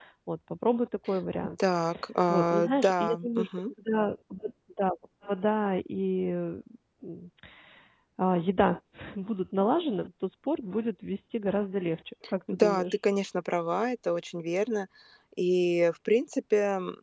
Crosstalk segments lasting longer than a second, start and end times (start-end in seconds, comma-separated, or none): 2.3-3.7